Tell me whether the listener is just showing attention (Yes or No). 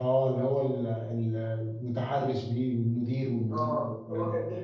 No